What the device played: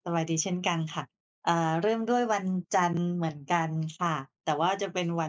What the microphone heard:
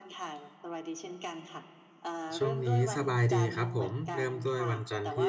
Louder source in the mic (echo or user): user